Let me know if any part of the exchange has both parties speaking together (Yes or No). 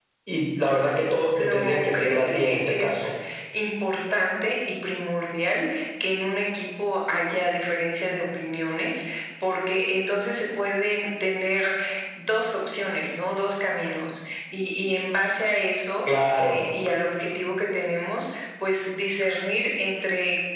Yes